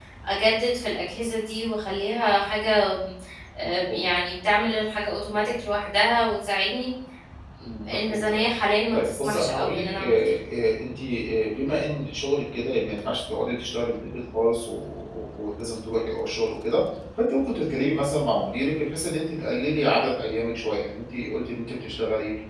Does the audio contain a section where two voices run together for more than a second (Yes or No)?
Yes